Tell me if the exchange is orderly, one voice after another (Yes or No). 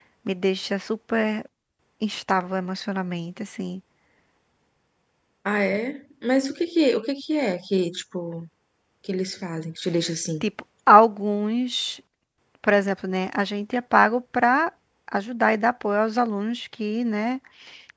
Yes